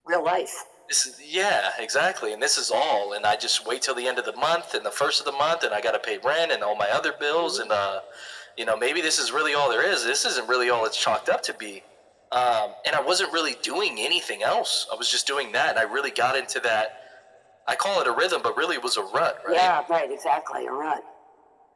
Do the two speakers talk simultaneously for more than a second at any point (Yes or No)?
No